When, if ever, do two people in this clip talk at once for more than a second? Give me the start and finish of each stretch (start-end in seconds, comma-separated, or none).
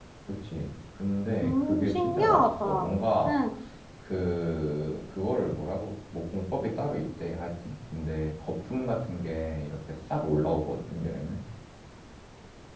1.4-2.9